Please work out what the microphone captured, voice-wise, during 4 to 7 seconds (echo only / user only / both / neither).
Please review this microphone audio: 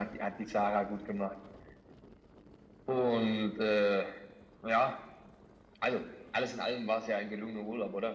echo only